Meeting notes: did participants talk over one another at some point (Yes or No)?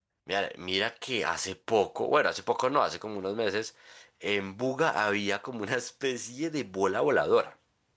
No